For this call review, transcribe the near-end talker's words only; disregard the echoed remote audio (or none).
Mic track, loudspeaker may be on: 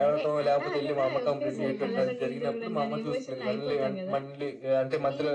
హ్మ్.